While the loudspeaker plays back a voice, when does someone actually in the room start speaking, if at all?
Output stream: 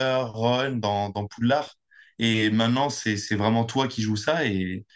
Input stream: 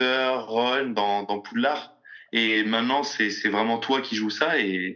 none

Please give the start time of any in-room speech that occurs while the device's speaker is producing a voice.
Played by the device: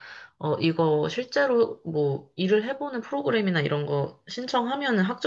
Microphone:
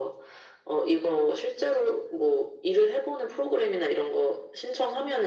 none

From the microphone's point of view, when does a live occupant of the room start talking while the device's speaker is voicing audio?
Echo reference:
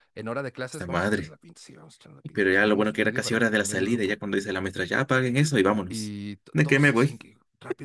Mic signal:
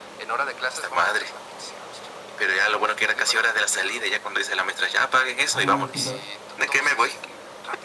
5.5 s

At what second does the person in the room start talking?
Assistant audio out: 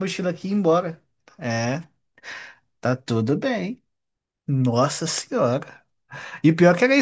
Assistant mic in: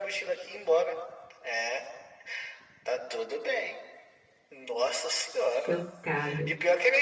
5.5 s

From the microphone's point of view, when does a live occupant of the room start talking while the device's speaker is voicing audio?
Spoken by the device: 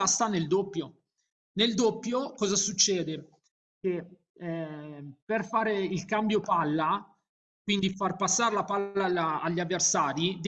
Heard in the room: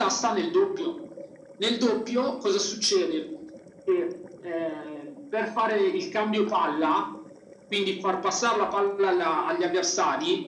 none

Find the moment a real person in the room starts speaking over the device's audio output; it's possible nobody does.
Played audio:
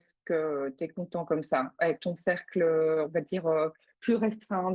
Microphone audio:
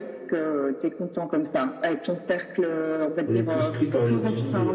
3.2 s

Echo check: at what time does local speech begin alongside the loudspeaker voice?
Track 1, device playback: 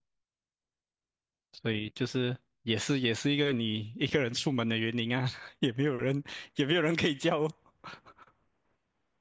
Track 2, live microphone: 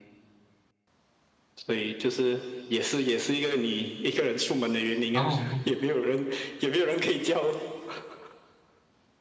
5.1 s

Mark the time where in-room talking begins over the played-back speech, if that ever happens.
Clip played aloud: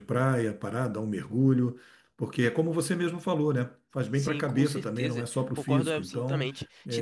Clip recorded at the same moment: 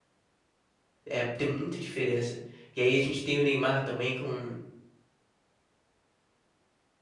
1.1 s

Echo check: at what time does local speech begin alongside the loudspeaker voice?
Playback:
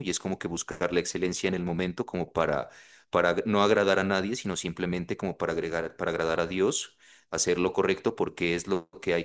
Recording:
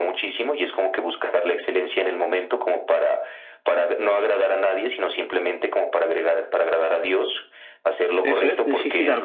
8.2 s

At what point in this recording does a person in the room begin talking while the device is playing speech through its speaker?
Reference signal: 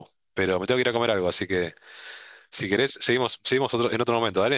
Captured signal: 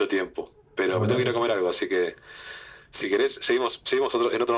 0.9 s

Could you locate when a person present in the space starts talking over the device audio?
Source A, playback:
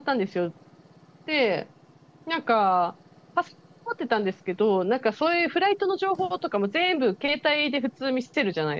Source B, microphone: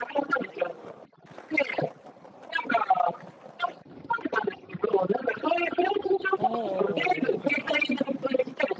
6.4 s

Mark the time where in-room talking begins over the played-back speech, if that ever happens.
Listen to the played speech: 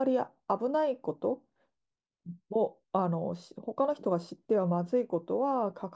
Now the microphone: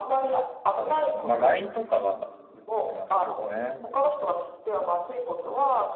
0.7 s

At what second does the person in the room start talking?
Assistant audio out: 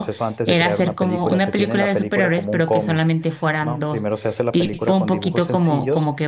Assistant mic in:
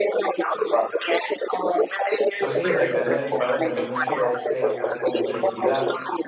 2.4 s

